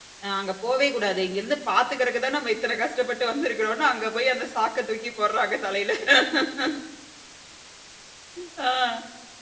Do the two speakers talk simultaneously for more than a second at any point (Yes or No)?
No